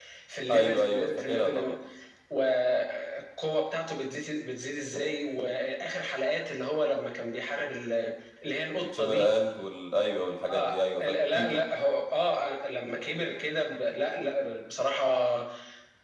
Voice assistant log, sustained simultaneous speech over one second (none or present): present